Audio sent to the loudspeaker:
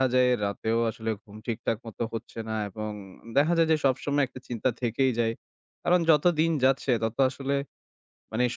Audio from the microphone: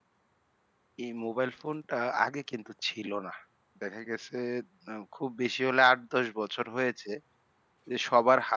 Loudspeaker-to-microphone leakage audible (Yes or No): No